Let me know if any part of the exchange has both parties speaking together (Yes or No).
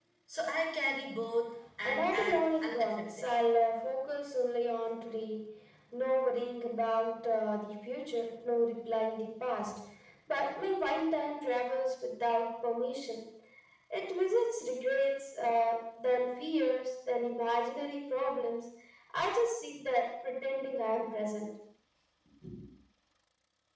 Yes